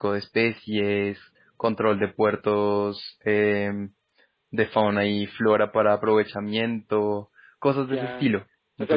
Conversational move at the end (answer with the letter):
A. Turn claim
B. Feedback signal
A